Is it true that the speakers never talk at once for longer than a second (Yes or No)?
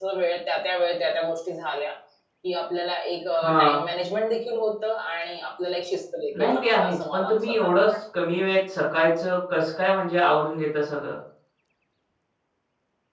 No